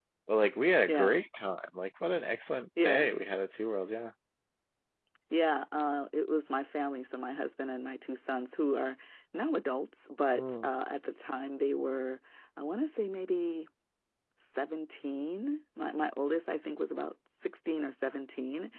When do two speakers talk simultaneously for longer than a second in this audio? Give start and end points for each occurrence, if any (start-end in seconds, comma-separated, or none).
none